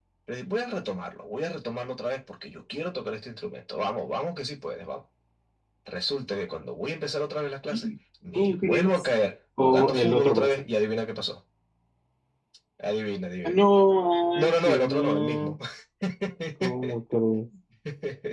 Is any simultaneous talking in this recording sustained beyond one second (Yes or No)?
Yes